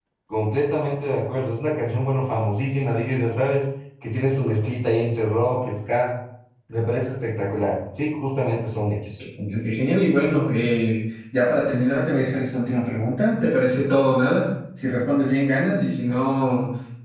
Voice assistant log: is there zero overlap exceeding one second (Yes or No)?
Yes